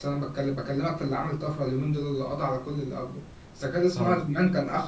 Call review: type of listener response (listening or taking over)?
listening